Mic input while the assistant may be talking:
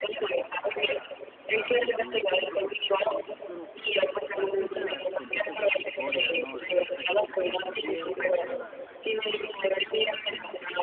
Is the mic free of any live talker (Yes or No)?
No